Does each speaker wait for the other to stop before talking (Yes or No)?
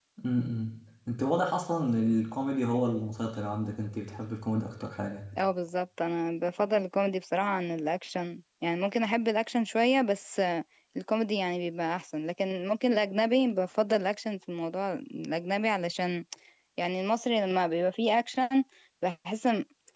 Yes